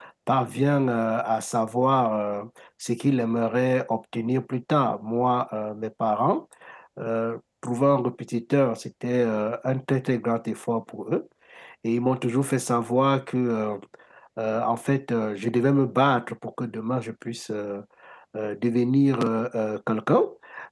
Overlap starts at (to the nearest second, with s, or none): none